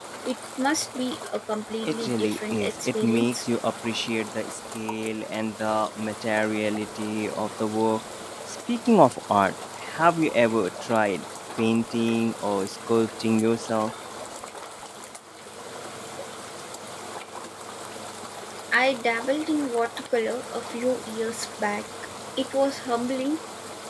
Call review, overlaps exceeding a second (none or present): present